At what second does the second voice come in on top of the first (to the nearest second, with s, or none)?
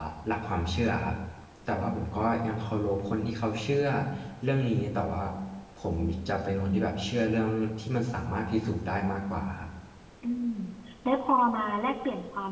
none